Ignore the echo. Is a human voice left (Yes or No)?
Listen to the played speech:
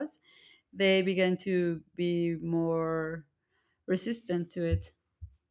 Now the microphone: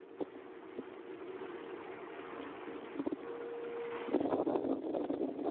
No